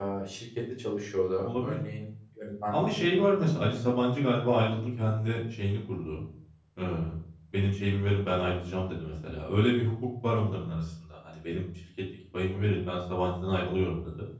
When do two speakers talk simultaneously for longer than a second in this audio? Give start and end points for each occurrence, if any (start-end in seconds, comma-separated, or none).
none